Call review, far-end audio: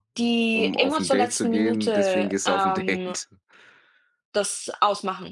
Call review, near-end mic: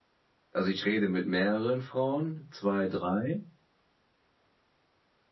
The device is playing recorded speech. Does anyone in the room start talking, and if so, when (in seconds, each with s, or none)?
0.5 s